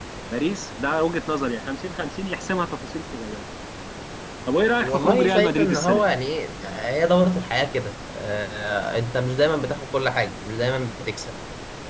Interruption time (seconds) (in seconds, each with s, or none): 4.8 s